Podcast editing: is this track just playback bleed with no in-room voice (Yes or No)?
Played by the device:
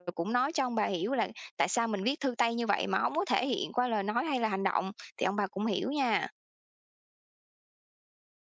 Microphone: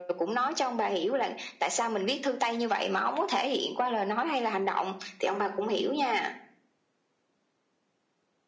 Yes